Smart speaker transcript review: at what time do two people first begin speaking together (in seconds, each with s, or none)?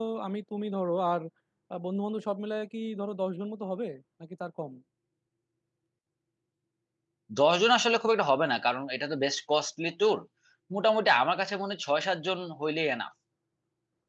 none